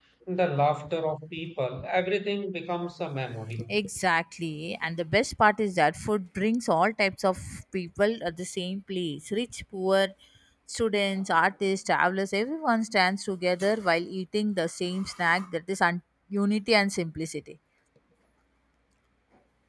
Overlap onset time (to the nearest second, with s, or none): none